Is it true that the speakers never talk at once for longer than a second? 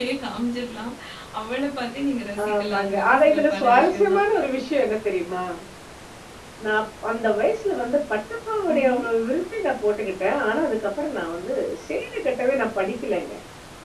No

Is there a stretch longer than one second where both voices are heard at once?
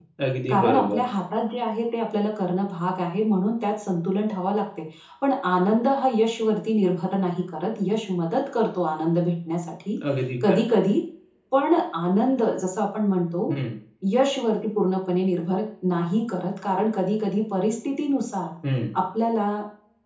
No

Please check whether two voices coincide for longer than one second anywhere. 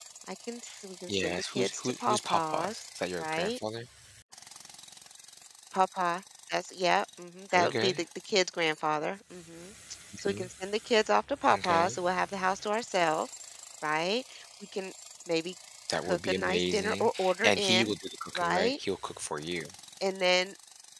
Yes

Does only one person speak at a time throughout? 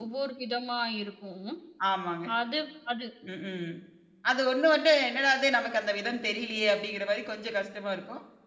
Yes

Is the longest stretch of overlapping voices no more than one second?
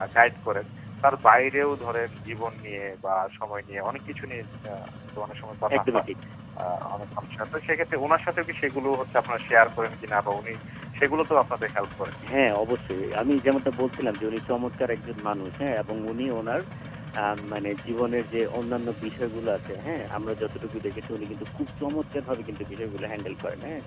Yes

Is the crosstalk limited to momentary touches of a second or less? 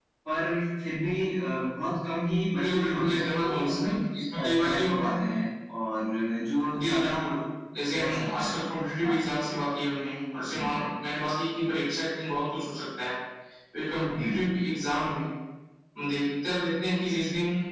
No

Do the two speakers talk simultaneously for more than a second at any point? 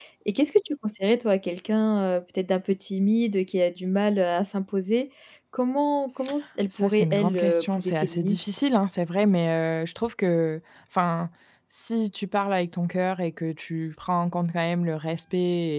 Yes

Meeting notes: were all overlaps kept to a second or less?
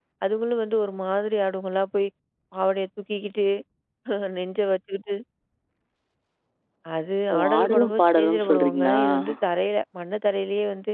No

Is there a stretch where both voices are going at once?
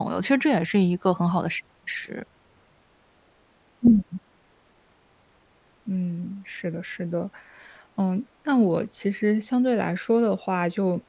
No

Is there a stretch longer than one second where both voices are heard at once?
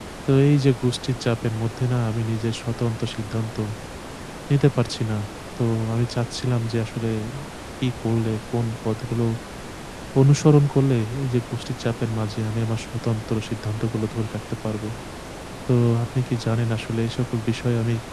No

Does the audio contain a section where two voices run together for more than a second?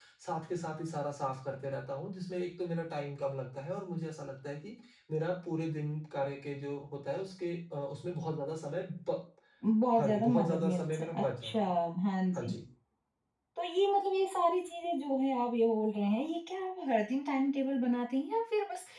Yes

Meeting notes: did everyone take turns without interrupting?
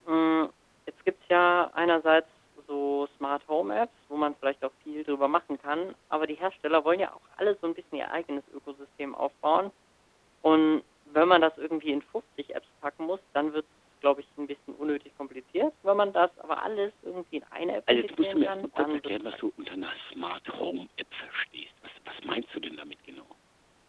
No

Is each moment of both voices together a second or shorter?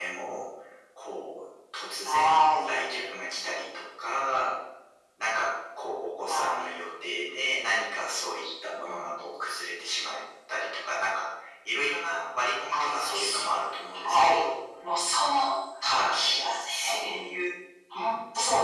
No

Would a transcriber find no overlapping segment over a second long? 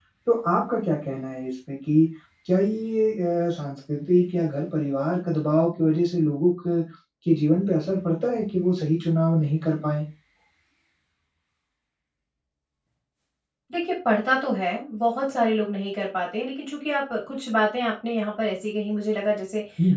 Yes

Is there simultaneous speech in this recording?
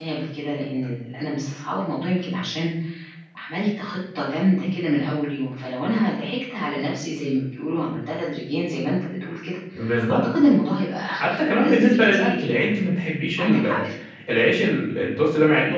Yes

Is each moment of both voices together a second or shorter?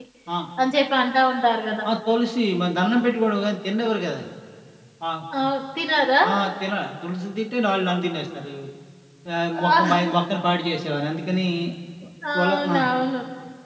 Yes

